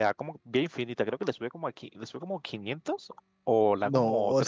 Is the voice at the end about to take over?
Yes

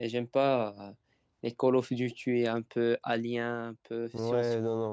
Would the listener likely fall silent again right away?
No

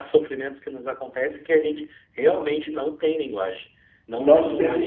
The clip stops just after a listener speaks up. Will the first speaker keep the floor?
No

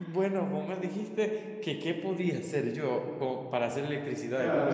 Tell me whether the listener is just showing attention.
No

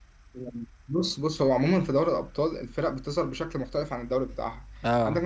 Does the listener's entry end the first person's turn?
No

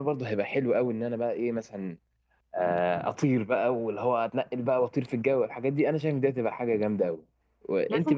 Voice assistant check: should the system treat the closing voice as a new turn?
Yes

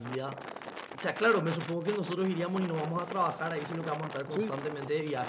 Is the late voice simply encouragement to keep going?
Yes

